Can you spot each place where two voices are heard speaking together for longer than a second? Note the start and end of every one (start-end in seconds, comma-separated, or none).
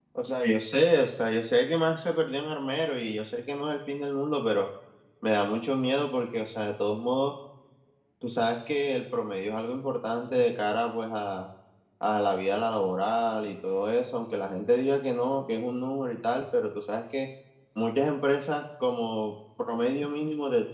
none